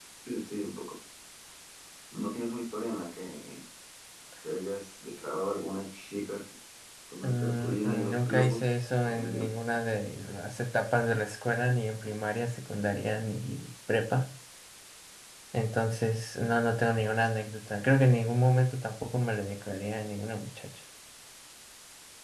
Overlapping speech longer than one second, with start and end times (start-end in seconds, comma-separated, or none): 7.2-8.6